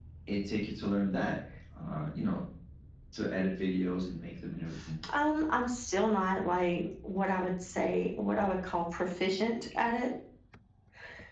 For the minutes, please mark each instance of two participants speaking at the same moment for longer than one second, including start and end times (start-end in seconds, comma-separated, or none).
none